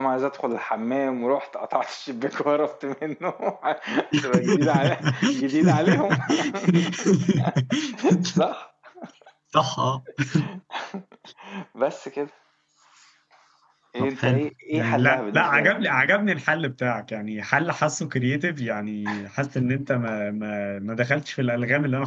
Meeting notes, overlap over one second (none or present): present